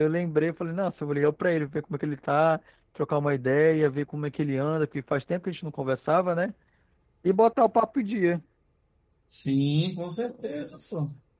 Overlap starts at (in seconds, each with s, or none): none